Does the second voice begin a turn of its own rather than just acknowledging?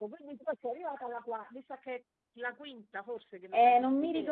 Yes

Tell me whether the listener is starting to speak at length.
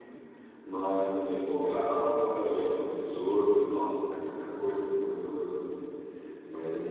No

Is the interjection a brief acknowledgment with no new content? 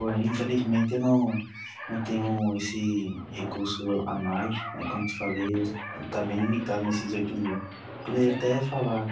Yes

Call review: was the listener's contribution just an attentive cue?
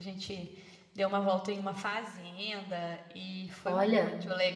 Yes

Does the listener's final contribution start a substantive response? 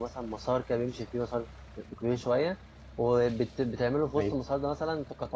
No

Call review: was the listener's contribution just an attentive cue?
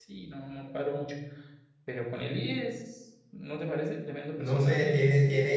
No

